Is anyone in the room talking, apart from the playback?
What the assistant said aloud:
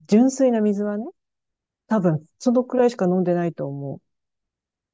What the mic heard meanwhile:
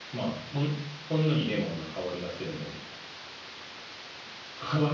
Yes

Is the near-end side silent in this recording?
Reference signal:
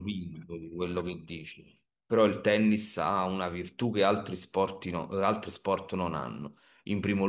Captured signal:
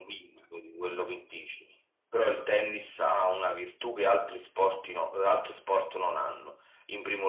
Yes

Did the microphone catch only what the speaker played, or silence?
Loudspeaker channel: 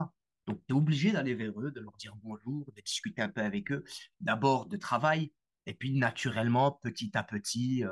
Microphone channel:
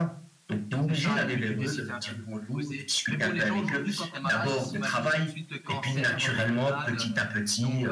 No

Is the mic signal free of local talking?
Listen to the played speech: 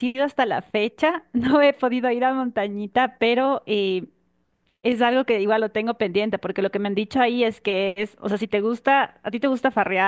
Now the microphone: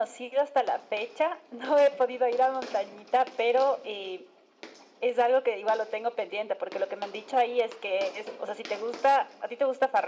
Yes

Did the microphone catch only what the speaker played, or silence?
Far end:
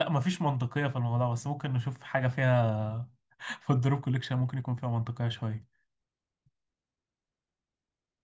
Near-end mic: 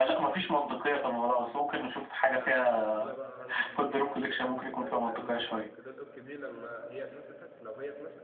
No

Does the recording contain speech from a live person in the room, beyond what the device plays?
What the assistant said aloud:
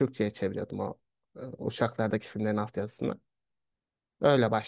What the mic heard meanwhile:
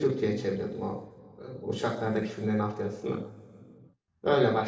No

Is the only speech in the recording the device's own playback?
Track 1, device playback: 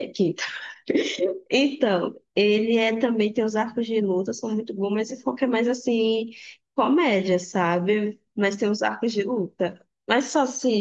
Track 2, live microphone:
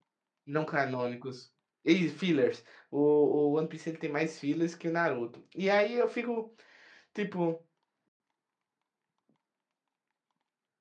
No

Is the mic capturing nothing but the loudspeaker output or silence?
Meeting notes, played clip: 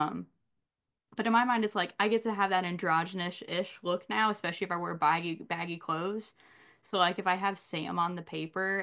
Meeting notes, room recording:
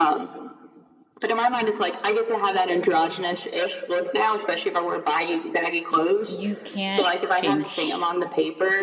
No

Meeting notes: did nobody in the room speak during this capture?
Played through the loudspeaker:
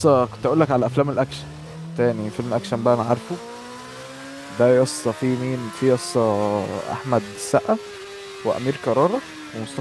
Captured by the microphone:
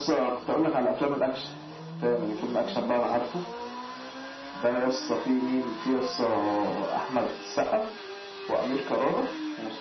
Yes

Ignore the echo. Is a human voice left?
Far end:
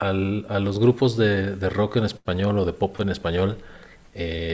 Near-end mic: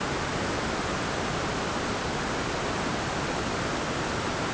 No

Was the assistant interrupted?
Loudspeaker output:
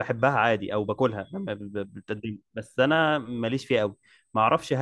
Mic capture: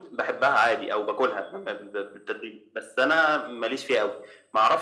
No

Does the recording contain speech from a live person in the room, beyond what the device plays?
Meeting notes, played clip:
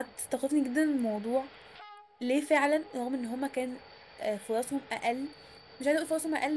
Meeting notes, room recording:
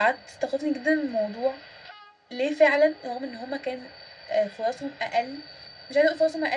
No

